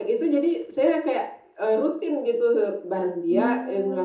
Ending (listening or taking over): listening